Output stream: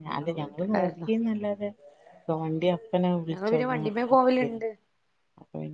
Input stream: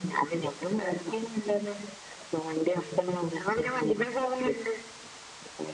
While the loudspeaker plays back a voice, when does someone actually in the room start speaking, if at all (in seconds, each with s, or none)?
none